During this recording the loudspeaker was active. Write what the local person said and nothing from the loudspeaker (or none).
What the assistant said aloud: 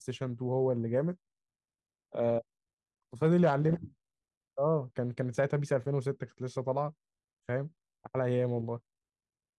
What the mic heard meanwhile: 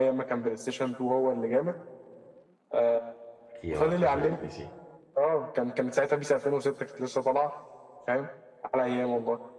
ايوه كشري اتنسي